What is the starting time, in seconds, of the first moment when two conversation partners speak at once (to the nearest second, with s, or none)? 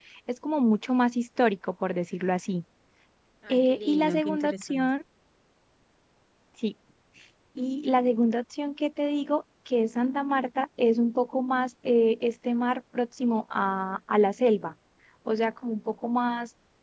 3 s